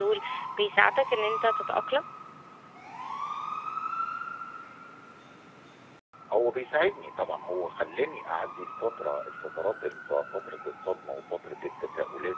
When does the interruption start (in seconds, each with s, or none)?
none